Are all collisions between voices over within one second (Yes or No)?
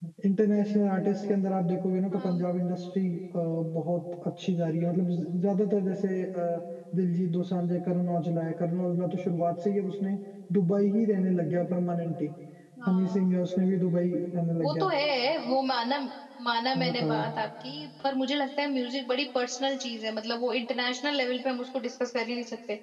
Yes